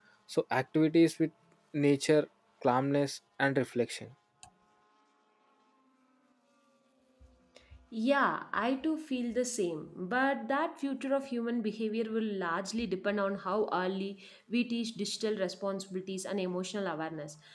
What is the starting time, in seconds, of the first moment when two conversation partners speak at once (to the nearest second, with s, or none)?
none